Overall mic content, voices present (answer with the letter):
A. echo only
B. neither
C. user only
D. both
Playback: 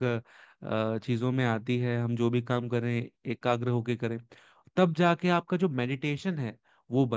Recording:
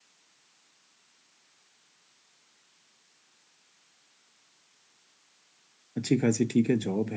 C